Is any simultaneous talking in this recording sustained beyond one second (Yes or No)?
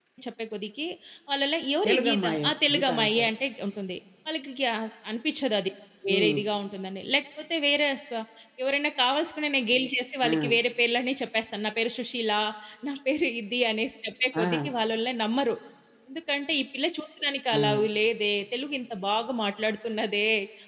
Yes